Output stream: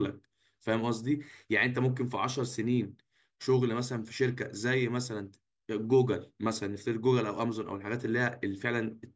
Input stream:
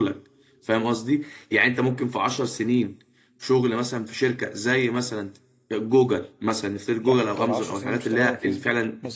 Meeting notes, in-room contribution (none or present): present